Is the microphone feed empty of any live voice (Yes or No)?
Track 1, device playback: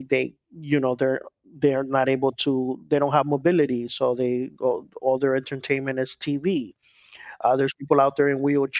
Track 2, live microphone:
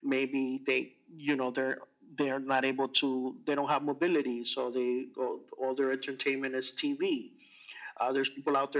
Yes